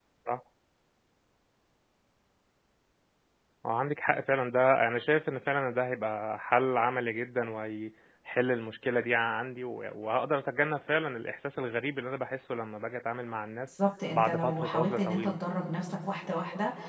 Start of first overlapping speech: 14.1 s

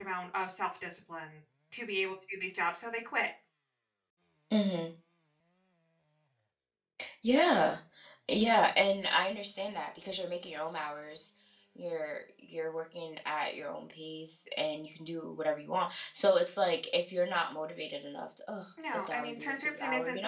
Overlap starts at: 18.8 s

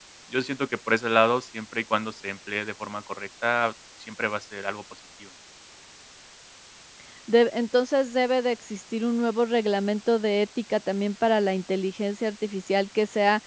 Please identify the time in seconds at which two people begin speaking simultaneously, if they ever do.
none

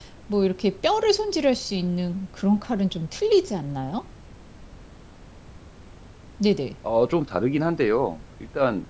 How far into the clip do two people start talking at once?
none

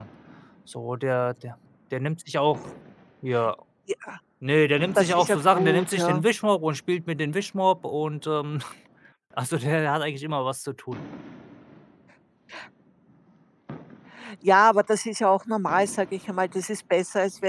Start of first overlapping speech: 5.0 s

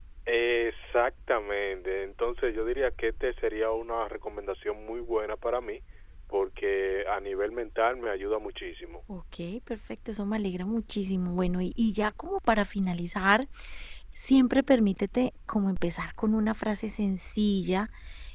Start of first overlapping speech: none

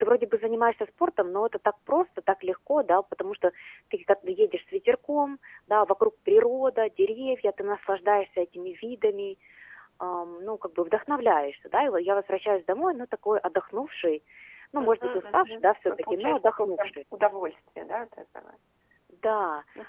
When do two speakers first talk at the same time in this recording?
14.8 s

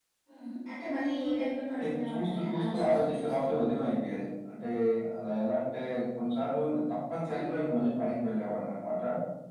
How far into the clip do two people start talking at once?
1.8 s

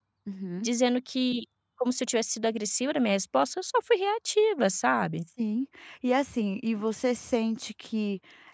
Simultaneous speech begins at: none

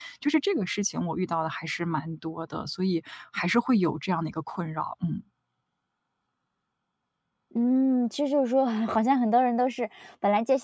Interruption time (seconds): none

